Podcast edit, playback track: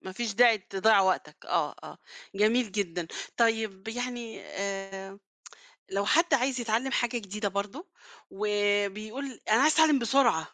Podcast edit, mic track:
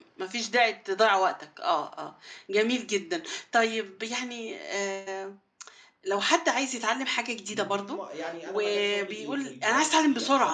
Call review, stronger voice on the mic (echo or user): echo